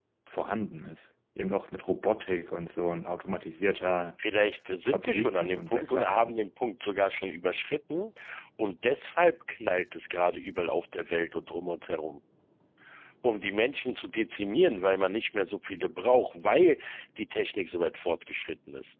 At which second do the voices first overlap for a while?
4.9 s

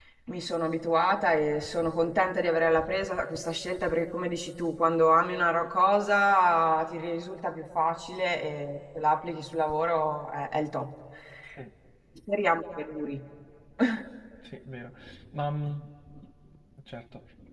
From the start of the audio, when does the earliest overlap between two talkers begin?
none

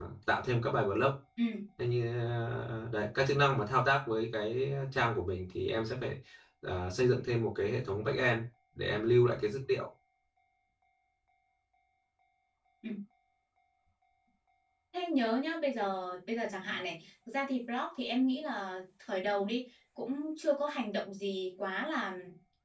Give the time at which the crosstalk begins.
none

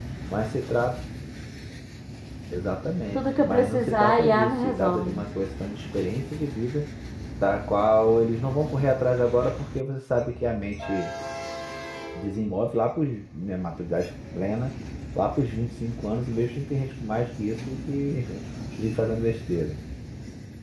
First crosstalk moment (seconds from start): 3.1 s

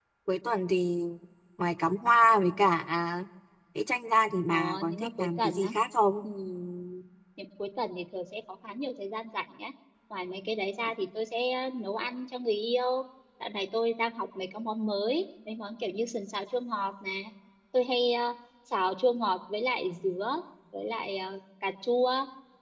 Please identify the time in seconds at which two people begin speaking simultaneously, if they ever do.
4.5 s

